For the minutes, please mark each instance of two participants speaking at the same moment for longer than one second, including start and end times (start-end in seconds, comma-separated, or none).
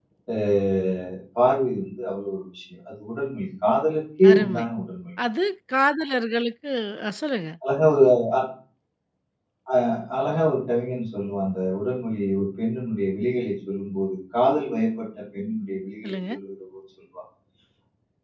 none